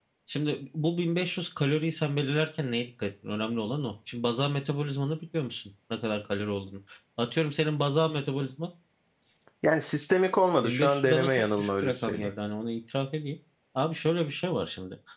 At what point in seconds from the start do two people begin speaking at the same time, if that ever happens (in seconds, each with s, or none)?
10.6 s